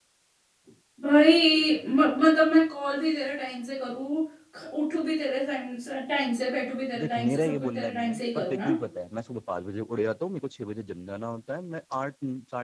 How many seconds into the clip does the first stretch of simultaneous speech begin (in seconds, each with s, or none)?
7.0 s